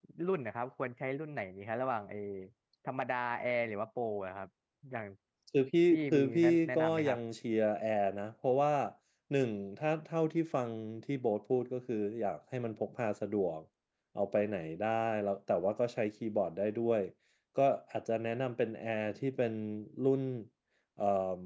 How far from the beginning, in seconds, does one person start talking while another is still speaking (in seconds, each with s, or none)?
5.9 s